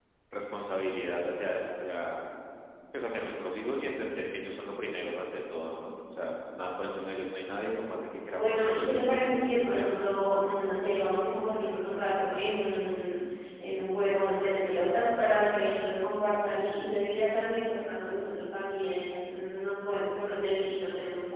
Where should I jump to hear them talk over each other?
8.4 s

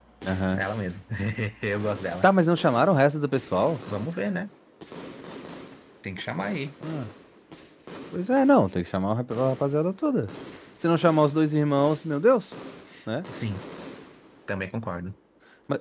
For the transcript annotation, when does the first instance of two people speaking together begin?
none

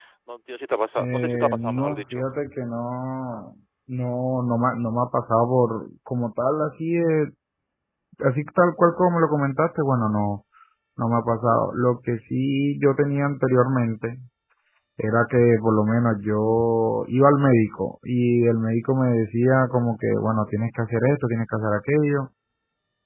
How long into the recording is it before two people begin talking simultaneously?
1.0 s

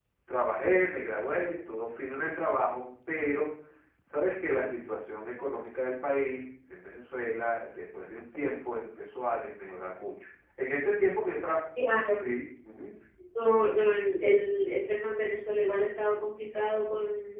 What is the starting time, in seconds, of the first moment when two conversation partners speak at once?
none

